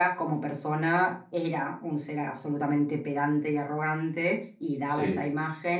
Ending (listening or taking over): listening